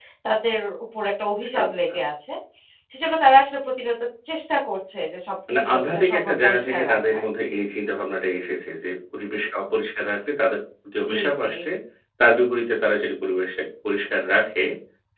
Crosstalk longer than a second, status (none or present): present